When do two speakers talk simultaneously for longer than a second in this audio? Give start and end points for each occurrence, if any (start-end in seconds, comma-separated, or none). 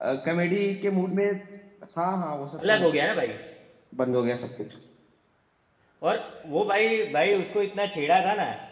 none